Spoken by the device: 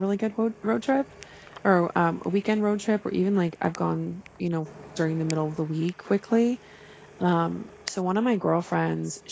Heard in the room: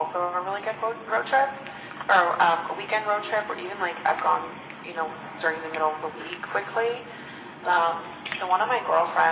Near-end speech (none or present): none